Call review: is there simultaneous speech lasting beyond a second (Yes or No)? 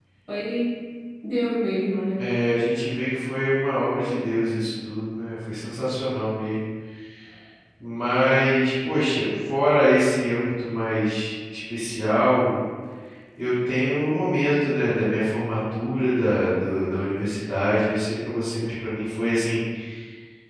No